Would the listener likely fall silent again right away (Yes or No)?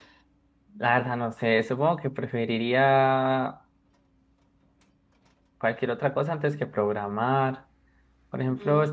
Yes